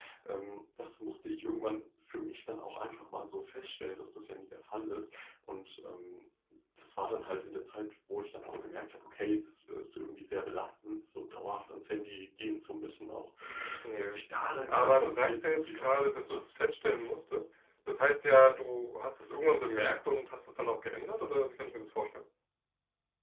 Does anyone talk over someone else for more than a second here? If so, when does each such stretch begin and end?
14.7-16.4

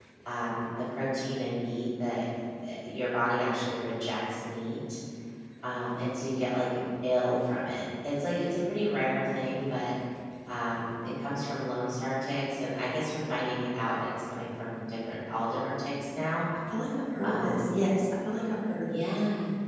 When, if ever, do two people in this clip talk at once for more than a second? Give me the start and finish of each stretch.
none

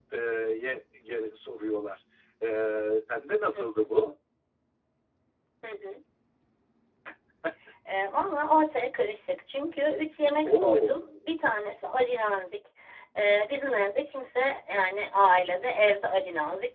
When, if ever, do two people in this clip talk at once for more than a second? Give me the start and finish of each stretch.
none

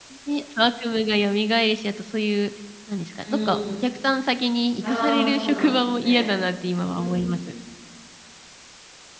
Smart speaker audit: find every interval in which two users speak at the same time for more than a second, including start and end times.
4.8-6.3

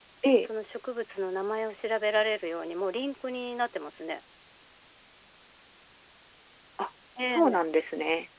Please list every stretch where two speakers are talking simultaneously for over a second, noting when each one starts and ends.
none

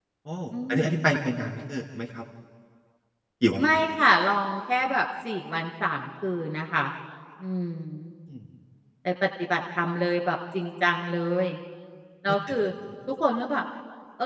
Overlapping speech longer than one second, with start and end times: none

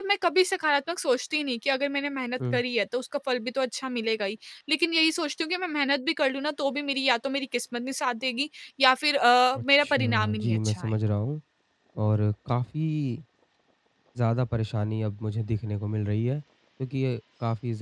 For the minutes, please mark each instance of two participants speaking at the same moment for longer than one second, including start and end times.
9.6-10.9

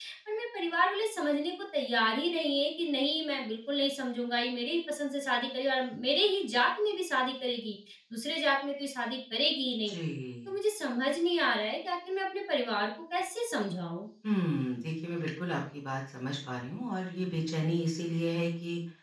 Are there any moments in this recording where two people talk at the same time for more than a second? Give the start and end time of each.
none

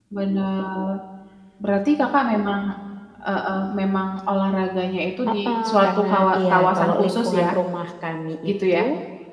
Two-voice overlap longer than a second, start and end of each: 5.3-7.5

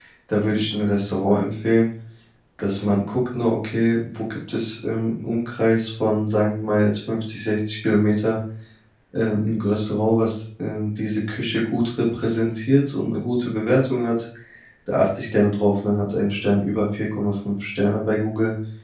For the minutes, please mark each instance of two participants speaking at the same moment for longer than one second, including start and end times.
none

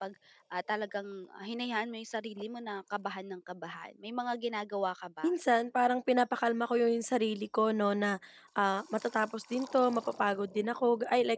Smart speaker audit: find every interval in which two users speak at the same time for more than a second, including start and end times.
none

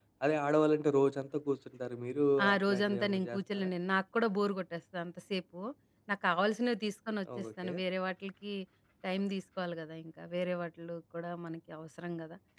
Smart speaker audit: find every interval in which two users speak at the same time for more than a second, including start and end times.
2.5-3.7

